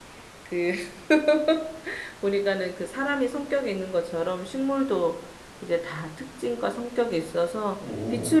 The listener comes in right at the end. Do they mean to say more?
No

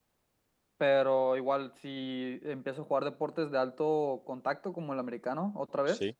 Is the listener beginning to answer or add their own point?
No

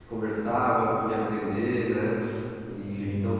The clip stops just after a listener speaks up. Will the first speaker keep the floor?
Yes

